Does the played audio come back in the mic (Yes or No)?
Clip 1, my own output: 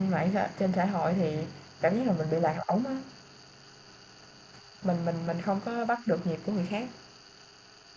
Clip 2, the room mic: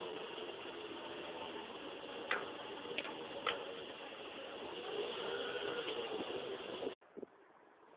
No